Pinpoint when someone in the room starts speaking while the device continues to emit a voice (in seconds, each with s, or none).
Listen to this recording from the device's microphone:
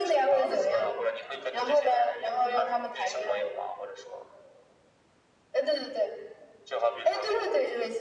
none